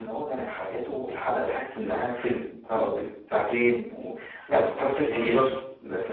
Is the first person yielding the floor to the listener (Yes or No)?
No